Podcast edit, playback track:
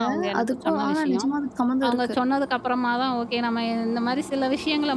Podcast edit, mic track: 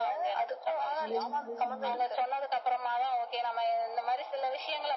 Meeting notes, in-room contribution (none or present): present